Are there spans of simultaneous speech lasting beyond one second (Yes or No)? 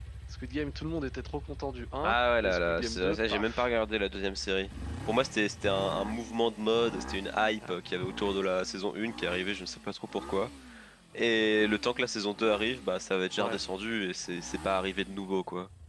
Yes